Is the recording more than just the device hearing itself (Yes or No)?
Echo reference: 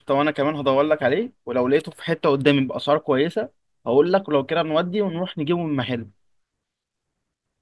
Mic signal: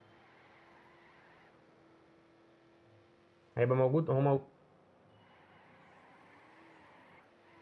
Yes